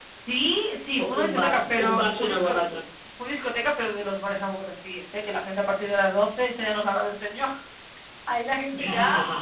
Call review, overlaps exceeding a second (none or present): present